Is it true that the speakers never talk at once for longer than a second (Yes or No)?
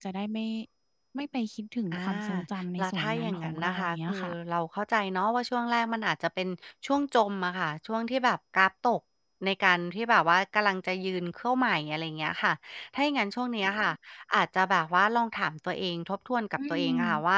No